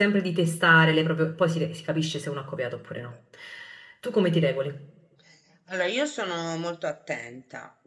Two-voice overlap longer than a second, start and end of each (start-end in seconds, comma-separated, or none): none